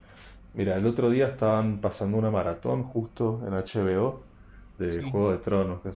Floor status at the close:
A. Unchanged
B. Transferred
A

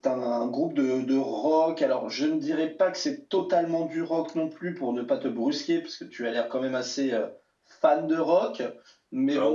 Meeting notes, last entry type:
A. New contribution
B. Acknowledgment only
A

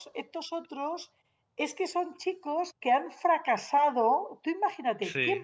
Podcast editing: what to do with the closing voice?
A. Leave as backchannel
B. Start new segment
A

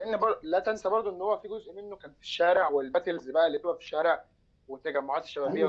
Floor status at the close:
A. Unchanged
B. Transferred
B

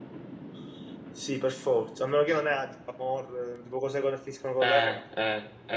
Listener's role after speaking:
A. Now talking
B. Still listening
A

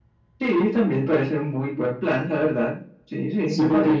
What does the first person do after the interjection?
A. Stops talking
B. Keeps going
A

